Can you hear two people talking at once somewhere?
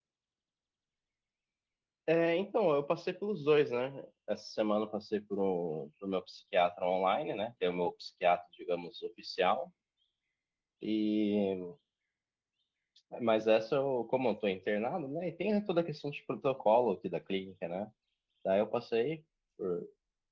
No

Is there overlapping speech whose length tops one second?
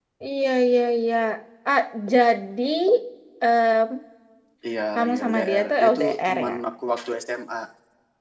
Yes, from 5.0 s

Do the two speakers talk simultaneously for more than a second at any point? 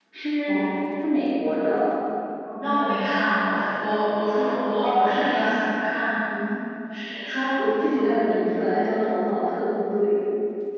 No

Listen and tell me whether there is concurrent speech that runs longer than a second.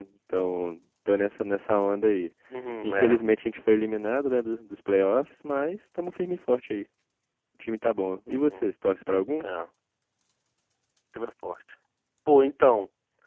No

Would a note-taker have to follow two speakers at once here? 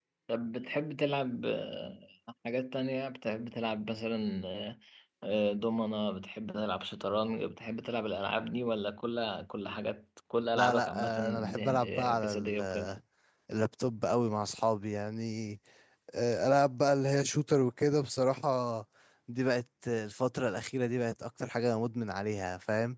Yes, from 10.6 s

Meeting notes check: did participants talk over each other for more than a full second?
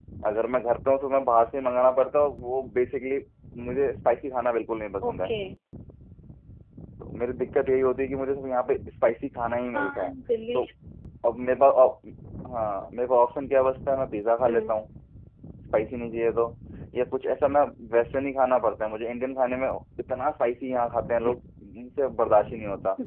No

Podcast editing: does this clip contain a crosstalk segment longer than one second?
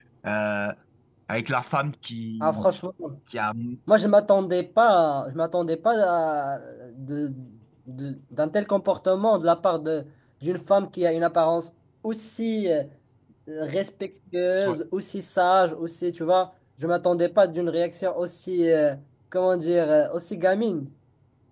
No

